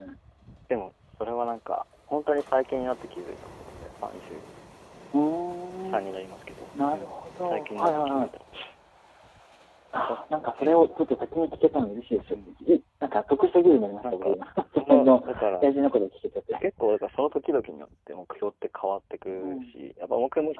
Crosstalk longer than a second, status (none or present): present